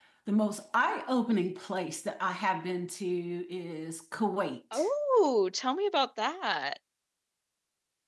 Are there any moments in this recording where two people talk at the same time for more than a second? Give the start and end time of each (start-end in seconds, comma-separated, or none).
none